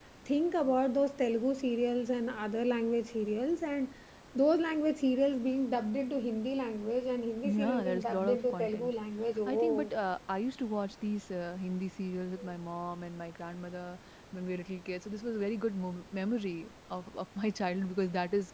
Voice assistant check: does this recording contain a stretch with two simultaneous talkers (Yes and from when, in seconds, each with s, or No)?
Yes, from 7.4 s